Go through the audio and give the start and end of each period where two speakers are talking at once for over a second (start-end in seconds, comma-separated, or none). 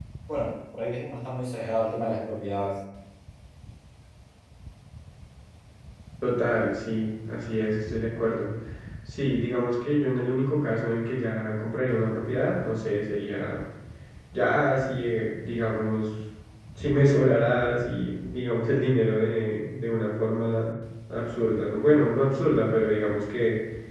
none